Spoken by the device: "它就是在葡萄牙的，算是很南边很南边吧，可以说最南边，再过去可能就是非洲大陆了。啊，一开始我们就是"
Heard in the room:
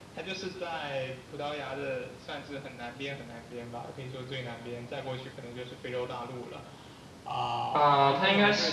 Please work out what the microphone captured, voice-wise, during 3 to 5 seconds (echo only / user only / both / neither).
echo only